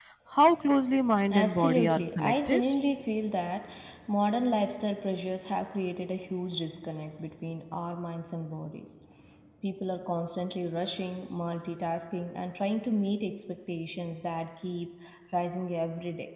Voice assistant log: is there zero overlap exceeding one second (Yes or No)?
No